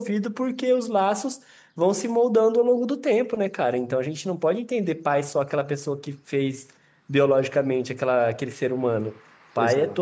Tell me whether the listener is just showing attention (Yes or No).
Yes